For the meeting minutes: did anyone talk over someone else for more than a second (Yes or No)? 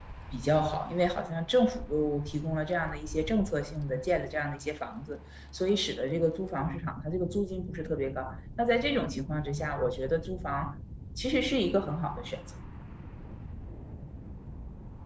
No